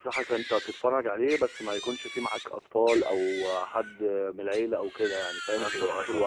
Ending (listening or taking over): taking over